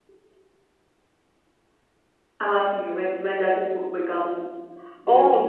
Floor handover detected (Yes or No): Yes